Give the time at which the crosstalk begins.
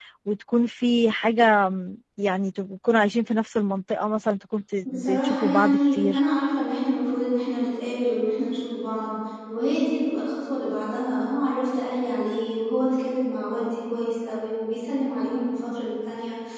4.8 s

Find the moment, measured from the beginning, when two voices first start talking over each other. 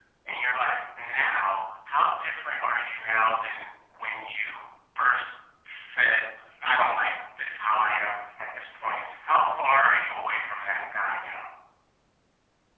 none

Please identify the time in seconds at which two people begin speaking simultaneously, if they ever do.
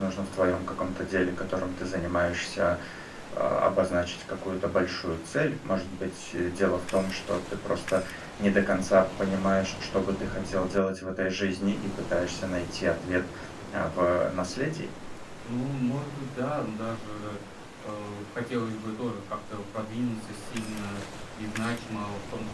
none

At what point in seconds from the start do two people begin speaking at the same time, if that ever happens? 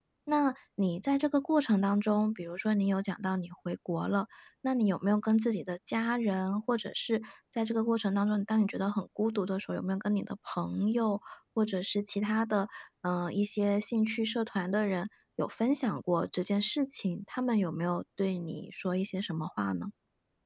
none

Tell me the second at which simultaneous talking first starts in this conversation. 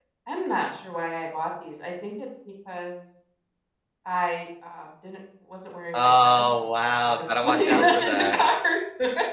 5.9 s

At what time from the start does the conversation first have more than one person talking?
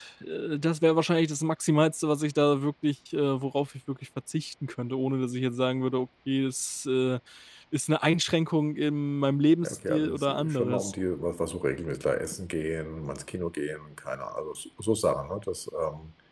9.6 s

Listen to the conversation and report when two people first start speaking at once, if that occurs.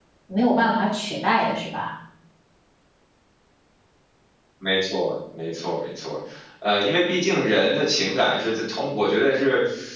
none

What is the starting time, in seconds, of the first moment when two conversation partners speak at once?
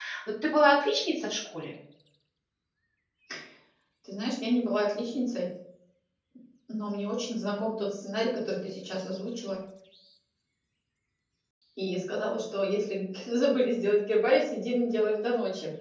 none

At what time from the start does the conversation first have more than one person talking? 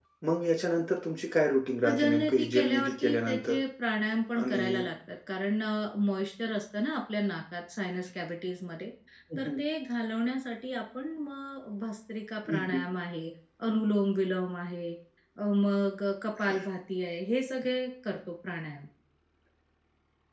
1.8 s

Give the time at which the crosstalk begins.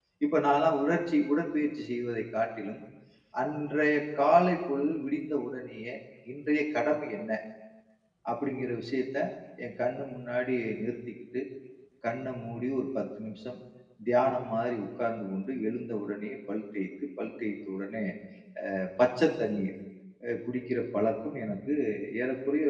none

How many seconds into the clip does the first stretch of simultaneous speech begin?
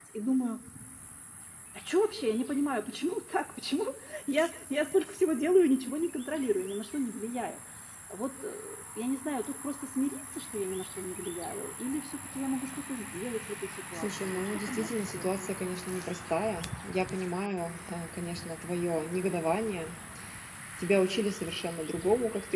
13.9 s

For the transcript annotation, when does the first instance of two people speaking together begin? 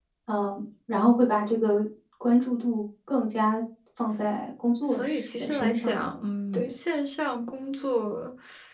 4.8 s

